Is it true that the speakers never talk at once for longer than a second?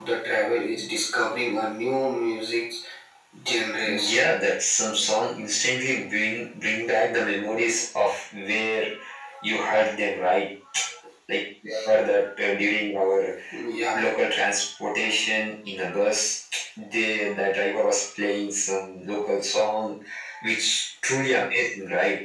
Yes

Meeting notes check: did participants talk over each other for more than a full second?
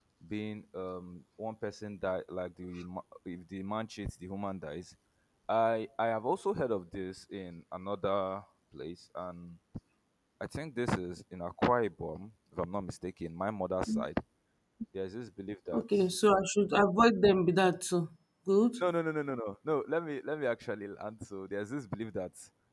No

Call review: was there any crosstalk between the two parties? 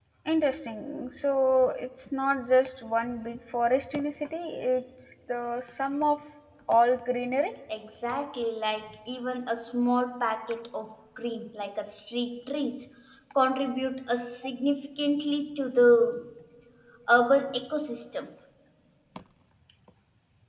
No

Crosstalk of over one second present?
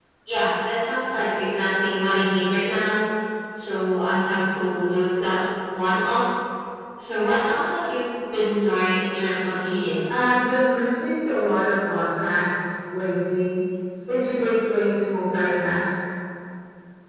No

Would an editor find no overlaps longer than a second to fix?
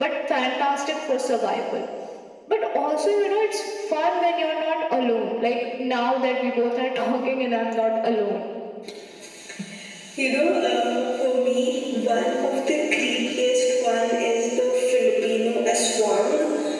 Yes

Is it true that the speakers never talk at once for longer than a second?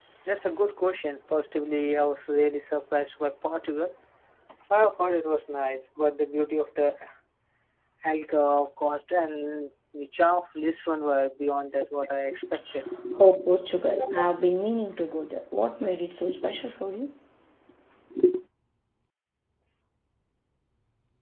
Yes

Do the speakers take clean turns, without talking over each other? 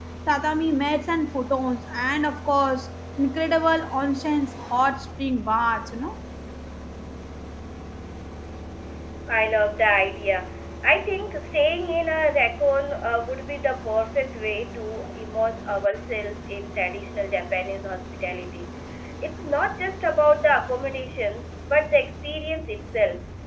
Yes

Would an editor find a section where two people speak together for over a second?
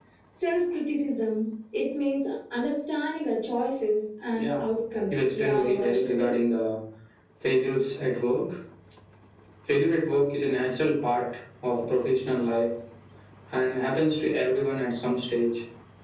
Yes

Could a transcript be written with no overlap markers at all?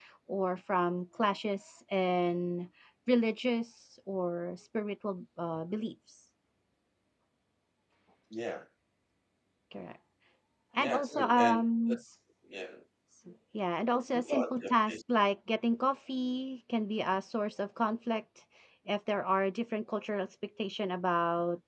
No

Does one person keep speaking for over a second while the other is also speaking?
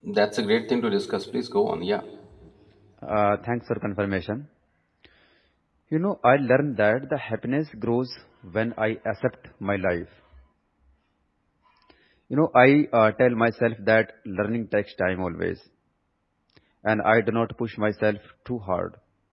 No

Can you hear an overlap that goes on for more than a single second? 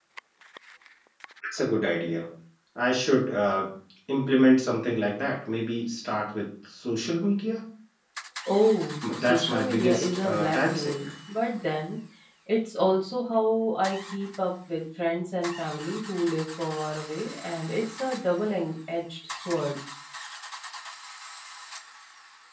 Yes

